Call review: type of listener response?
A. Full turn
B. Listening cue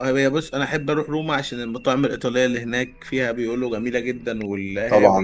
A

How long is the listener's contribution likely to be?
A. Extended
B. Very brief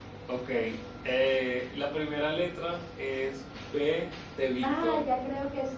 A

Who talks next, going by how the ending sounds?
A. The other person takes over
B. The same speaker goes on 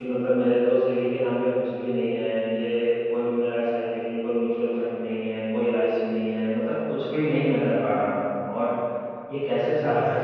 B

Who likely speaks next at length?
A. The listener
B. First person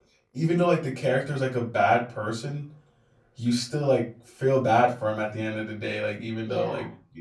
B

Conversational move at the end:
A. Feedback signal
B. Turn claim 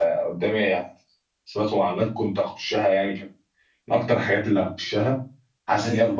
A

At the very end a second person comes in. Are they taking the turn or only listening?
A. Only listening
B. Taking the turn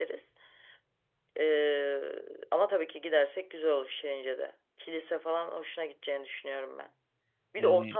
A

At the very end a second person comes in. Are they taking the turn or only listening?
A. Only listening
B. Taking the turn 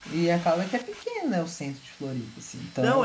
B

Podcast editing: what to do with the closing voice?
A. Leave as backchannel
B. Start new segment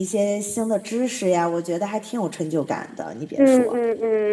B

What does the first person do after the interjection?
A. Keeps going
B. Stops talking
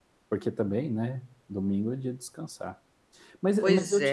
A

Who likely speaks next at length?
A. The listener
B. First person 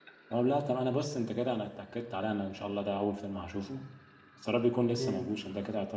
B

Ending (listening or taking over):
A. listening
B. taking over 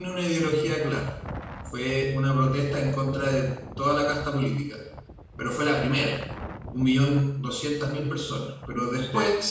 A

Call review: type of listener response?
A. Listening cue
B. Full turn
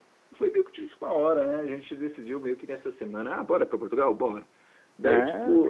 A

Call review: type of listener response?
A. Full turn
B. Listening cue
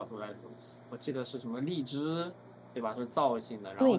A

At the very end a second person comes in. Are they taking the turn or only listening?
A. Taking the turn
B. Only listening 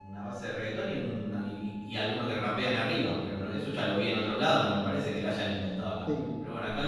A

